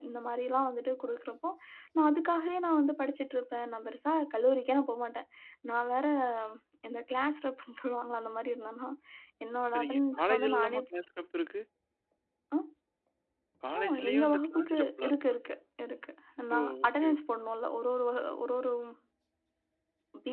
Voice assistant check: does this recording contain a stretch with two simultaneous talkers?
Yes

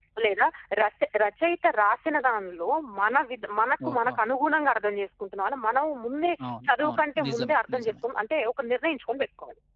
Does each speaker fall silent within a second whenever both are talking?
No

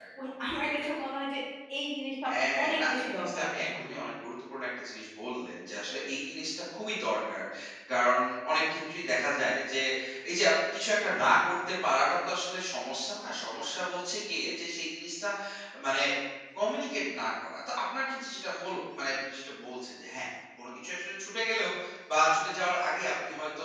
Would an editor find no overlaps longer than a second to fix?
No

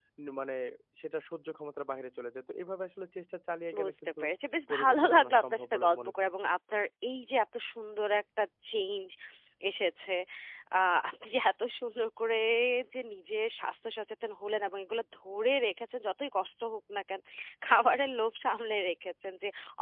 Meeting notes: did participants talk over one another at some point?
Yes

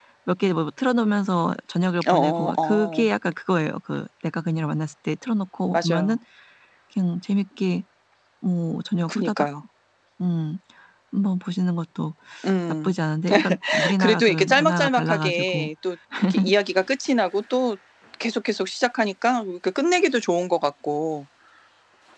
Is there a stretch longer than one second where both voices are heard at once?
Yes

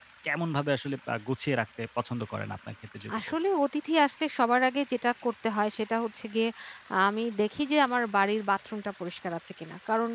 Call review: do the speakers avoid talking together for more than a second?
Yes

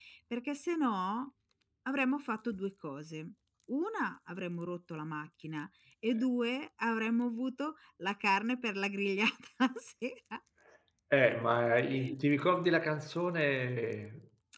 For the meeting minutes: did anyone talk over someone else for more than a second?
No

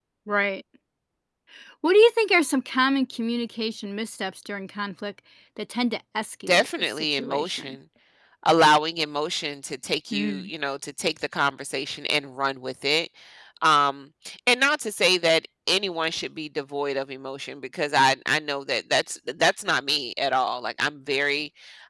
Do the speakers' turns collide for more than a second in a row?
Yes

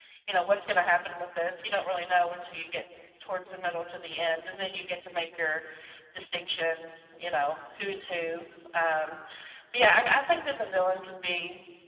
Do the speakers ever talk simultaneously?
No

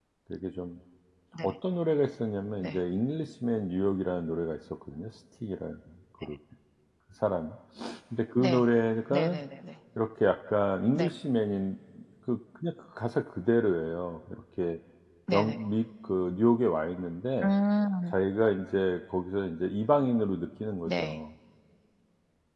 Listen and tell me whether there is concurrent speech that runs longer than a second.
No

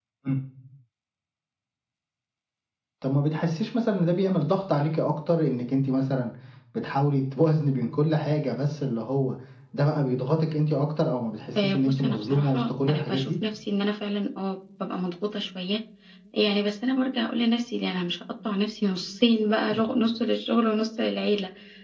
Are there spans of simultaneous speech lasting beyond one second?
Yes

